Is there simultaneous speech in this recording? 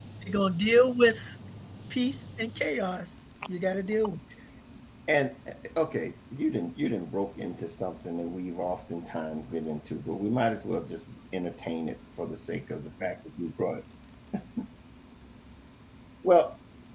No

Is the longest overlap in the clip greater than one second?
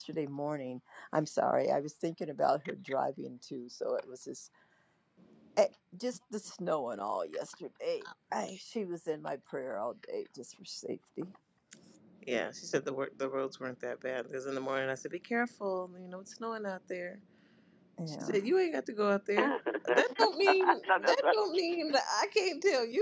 Yes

